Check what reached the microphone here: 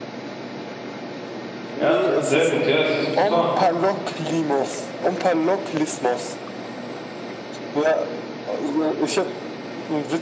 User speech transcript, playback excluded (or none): Ja, sehr gut. Ja, es ist Bhutan.